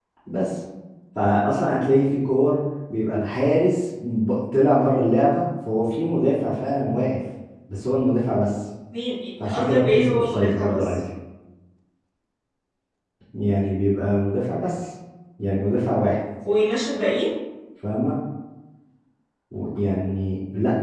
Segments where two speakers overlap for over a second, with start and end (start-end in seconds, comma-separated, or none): 9.4-10.8